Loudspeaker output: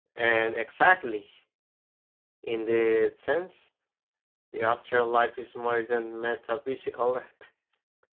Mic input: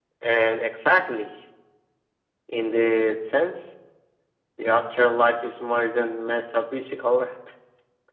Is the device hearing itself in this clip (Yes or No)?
Yes